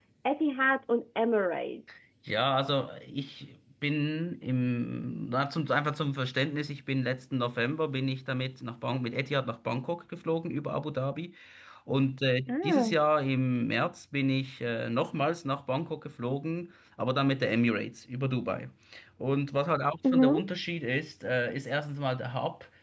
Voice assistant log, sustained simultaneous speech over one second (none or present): none